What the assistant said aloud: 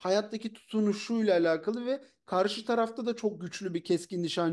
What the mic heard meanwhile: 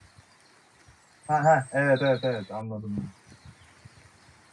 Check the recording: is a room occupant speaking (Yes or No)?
Yes